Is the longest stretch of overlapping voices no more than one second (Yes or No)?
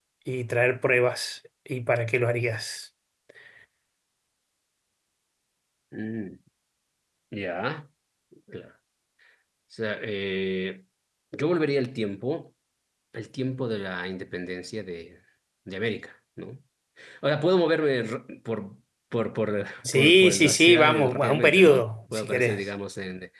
No